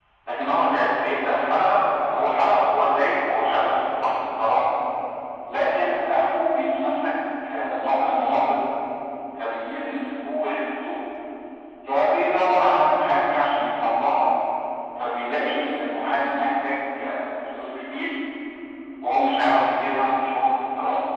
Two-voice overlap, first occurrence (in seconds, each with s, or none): none